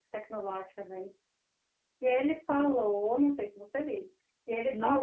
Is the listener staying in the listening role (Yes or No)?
Yes